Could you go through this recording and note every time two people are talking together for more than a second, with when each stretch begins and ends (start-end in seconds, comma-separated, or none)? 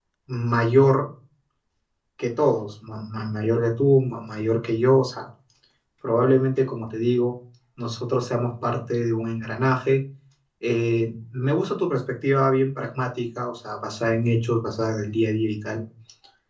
none